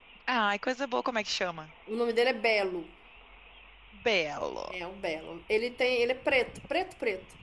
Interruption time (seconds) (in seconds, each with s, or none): none